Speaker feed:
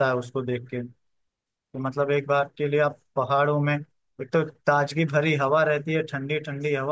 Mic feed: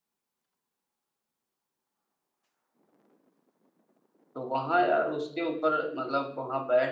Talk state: user only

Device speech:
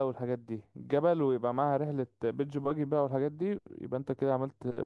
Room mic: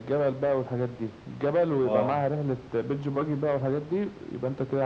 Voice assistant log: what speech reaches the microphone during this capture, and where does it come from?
both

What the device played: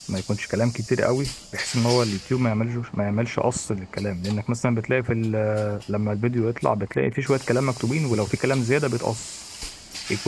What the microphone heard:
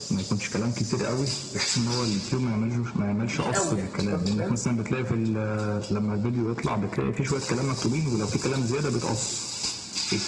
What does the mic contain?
both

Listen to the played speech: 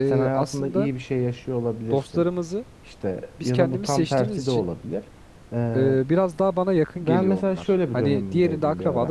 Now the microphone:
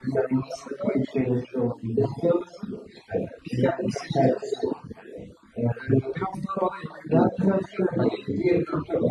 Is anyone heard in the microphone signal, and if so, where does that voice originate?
echo only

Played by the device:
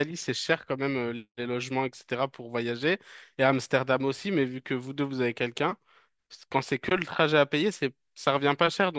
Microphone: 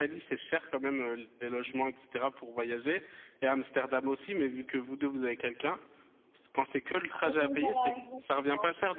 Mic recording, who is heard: both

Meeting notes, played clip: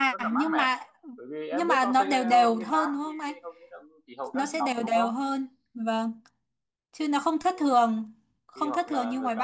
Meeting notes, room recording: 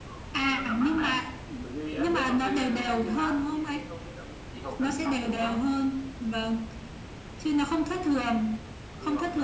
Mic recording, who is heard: echo only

